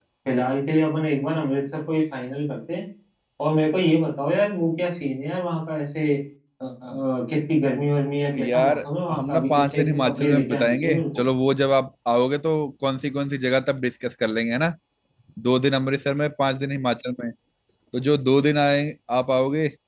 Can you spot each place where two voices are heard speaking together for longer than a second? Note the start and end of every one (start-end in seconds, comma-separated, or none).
8.4-11.0